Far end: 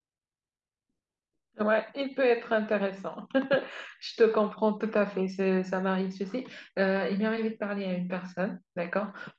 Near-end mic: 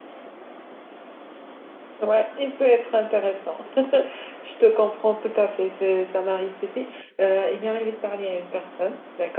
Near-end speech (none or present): none